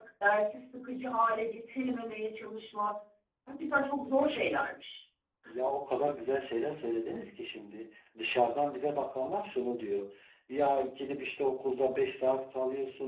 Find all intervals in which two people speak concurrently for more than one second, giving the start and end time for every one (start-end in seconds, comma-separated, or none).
none